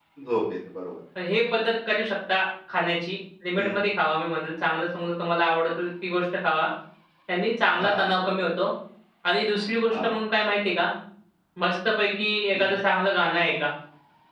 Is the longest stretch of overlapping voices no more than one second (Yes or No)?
Yes